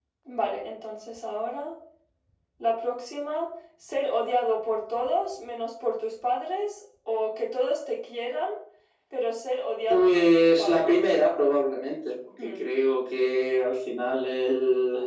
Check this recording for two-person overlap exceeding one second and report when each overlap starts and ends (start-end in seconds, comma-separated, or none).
9.9-11.2